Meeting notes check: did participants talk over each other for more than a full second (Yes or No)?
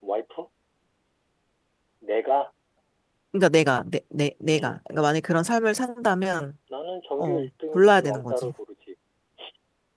Yes